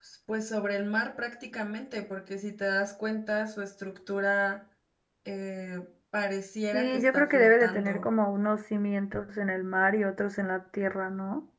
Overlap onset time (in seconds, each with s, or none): 6.7 s